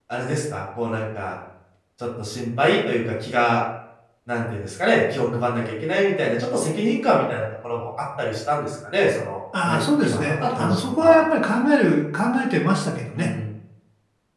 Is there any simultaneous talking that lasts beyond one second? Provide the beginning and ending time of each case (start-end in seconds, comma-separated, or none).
9.7-11.2